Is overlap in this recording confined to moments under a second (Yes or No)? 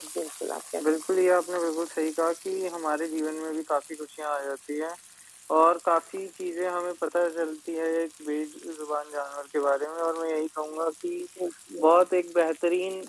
Yes